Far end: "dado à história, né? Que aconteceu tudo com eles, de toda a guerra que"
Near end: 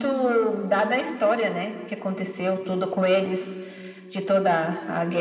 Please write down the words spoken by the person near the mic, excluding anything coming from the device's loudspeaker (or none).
none